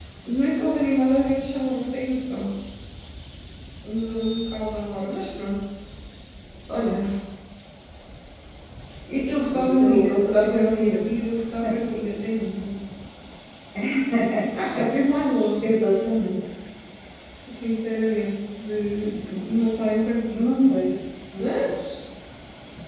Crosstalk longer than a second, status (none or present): present